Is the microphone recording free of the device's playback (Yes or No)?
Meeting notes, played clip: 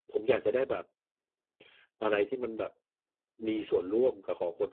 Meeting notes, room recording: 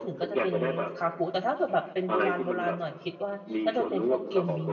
No